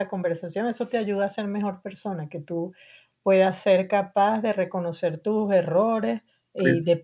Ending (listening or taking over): listening